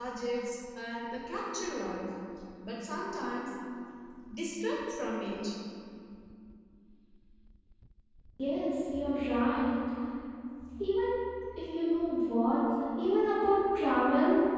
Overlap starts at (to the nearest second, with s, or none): none